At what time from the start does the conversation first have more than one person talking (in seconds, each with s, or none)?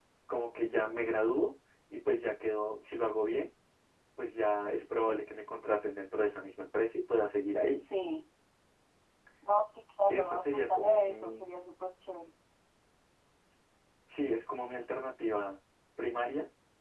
10.1 s